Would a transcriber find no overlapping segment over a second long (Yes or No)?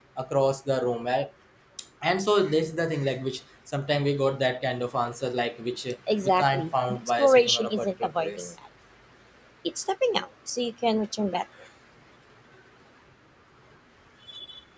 No